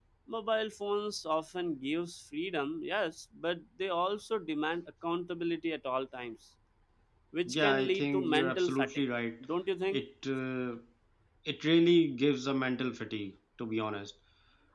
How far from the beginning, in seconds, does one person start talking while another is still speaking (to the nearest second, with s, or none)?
7 s